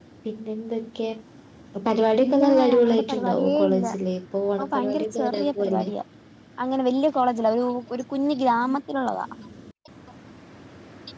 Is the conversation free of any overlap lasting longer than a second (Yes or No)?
No